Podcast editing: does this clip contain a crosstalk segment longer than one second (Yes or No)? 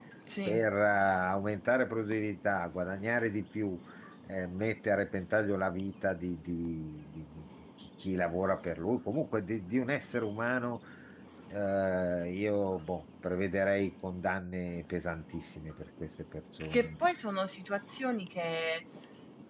No